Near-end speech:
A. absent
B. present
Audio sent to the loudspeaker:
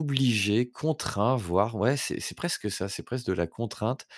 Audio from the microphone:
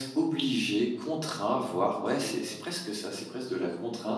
B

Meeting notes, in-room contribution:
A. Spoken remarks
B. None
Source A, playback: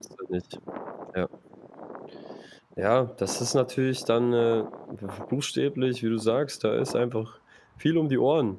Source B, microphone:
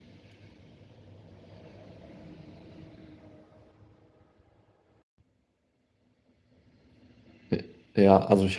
A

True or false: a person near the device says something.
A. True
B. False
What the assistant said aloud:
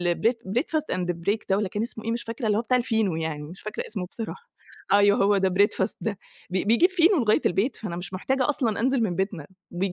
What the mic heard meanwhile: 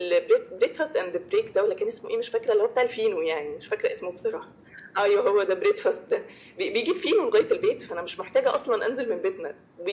B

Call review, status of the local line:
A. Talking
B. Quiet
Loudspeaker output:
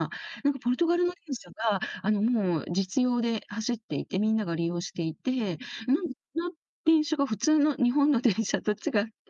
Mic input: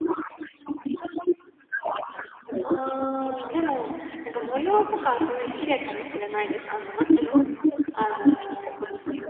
A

